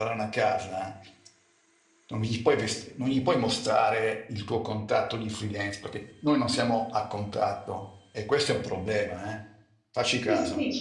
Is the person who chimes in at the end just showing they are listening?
No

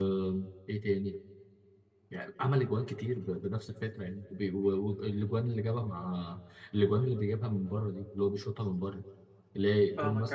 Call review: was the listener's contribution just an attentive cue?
No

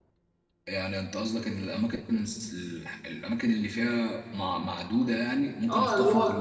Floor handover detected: Yes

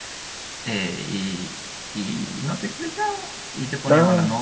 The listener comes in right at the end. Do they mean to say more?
No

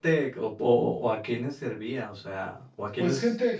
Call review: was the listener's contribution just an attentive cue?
No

